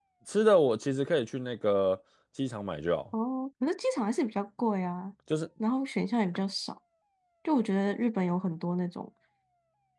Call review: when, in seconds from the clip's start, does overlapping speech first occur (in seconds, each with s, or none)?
none